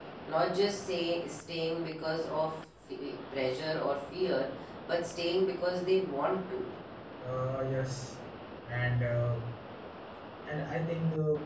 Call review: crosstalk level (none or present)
none